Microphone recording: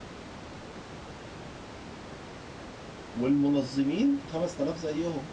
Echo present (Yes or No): No